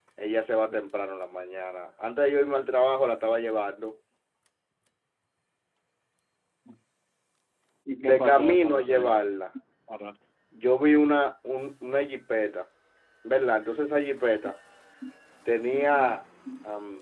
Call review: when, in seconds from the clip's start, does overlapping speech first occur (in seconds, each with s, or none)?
8.0 s